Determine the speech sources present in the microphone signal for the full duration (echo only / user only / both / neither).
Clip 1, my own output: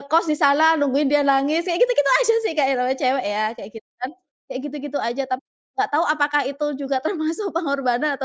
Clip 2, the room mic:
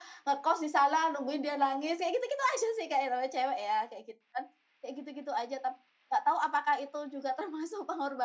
echo only